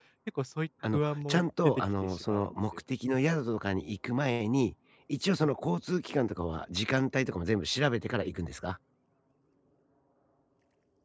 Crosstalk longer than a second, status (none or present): present